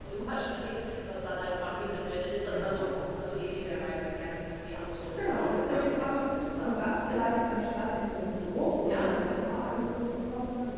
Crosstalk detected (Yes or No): Yes